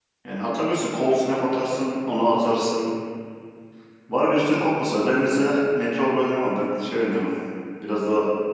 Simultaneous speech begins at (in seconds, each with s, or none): none